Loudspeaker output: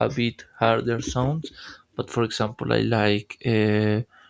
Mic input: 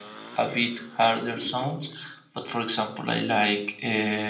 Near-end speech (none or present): none